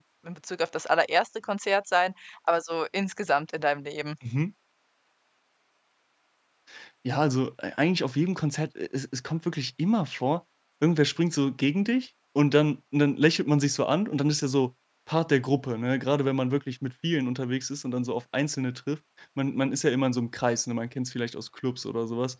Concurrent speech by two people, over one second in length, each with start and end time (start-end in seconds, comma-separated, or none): none